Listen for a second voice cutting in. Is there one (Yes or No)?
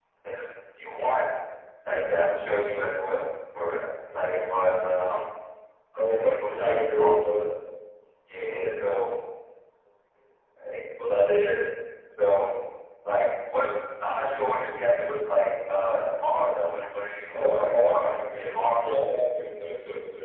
Yes